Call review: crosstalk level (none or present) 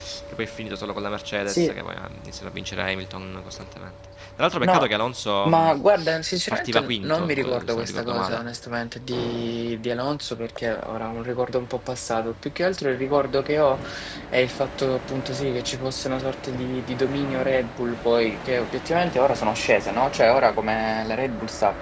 present